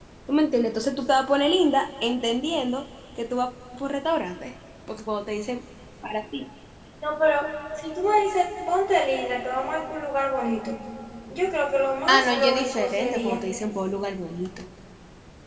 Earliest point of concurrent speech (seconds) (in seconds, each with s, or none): 12.1 s